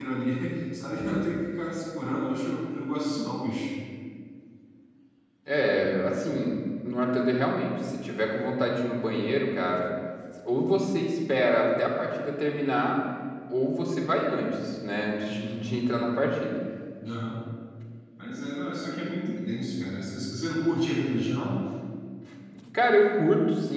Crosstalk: none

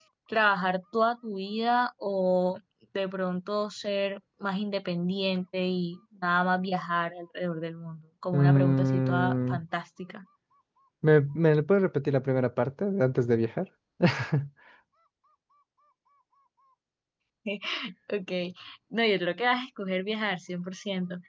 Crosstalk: present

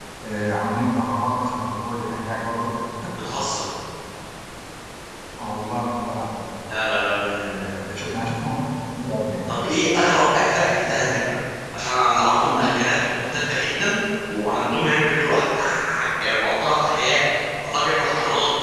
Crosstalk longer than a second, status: none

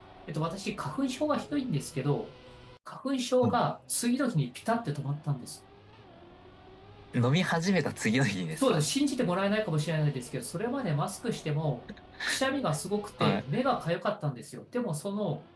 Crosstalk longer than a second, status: none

